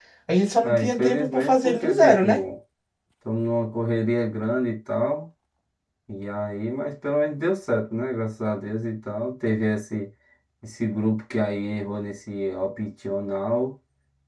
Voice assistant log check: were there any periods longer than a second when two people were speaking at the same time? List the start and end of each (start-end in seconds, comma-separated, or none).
0.6-2.4